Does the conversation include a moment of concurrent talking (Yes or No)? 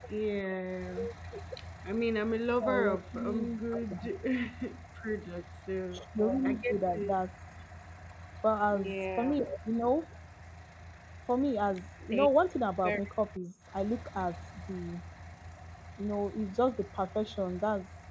Yes